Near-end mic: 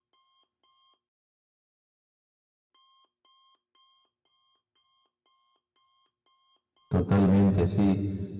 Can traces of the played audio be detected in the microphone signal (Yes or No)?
No